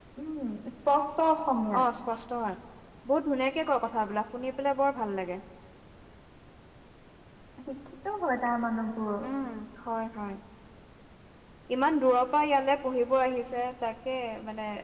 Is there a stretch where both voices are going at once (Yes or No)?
No